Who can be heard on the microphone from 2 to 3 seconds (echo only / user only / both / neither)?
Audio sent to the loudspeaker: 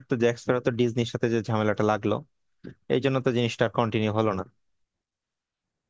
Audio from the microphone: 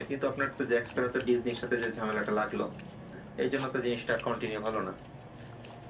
echo only